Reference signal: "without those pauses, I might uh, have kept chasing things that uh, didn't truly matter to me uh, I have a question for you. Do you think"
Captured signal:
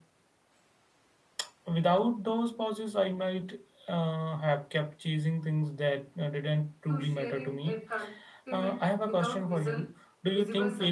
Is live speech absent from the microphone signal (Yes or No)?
No